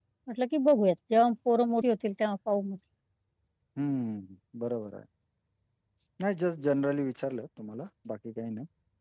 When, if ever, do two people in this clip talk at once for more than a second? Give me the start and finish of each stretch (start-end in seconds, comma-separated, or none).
none